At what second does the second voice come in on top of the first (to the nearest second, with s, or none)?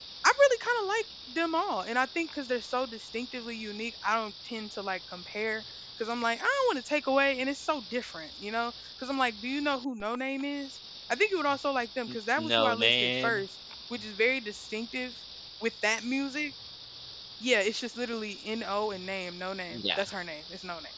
12 s